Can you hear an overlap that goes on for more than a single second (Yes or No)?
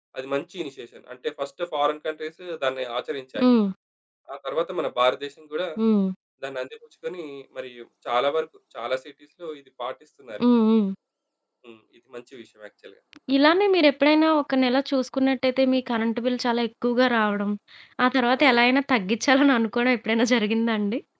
No